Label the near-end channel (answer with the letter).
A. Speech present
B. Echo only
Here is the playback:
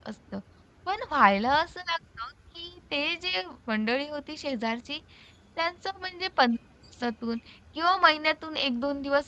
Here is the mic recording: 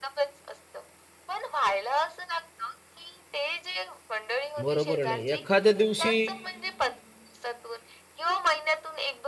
A